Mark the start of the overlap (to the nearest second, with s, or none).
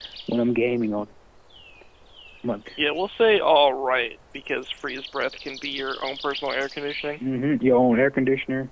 none